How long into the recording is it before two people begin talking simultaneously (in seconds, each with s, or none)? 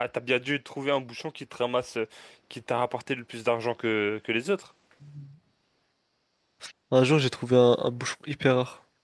none